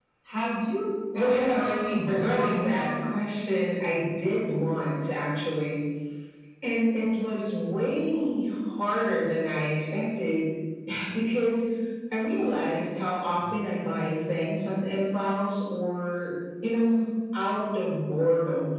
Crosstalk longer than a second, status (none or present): present